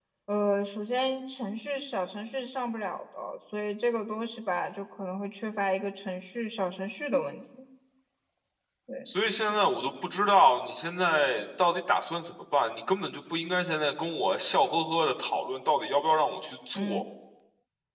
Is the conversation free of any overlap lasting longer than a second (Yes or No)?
Yes